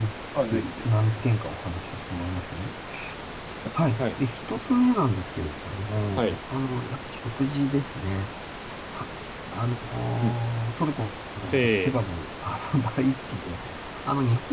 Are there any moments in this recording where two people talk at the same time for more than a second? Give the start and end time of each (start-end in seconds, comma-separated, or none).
none